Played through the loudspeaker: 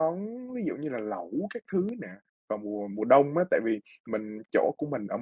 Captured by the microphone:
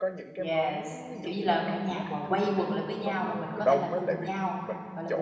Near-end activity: present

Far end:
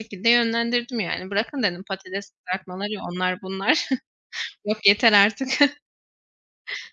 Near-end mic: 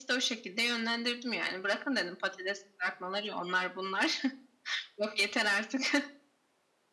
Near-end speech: none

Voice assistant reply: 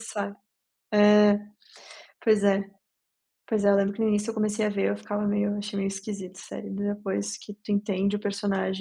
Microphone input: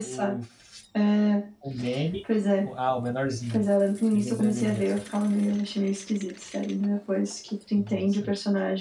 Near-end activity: present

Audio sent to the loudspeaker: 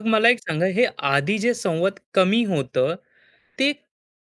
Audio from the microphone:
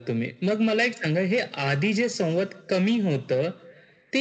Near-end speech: none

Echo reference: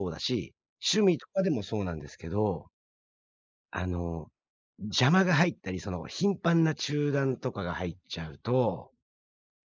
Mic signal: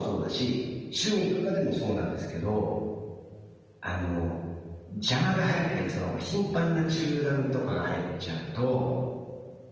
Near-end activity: none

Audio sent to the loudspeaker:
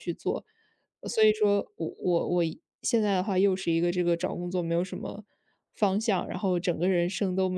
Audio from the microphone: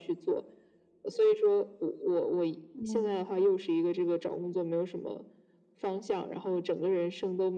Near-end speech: present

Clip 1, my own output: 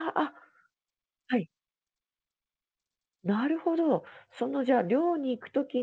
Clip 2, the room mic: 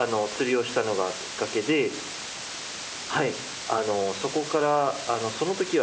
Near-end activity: present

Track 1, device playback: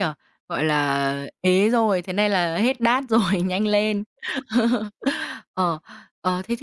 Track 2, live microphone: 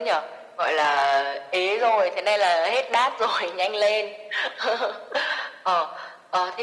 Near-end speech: none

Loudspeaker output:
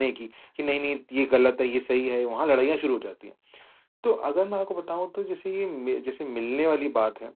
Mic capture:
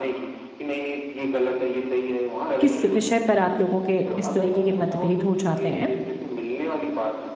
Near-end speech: present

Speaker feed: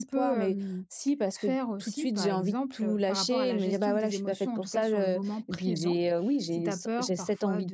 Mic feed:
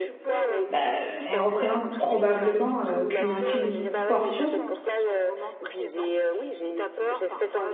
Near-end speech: present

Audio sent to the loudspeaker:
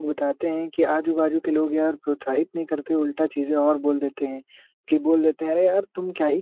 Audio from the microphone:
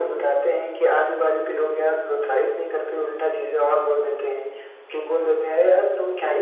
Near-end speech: none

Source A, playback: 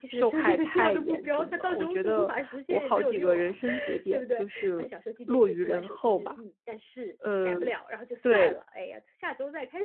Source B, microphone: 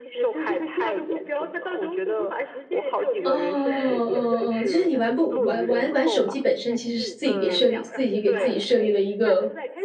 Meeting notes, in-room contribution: present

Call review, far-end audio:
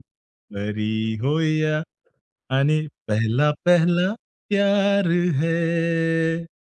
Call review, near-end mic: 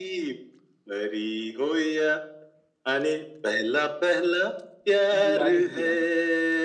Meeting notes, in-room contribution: present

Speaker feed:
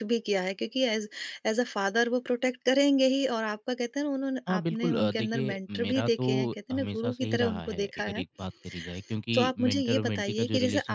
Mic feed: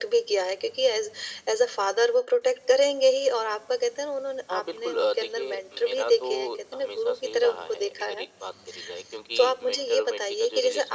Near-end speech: none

